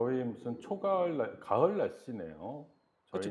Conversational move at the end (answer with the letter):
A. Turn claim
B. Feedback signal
A